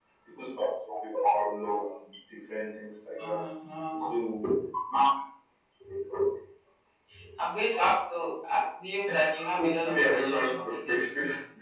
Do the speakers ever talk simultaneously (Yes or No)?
Yes